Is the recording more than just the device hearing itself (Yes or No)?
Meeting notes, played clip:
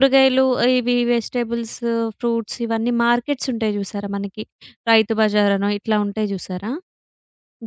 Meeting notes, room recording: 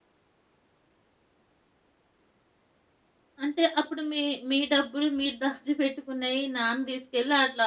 Yes